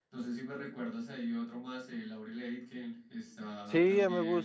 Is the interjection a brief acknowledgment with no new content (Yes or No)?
No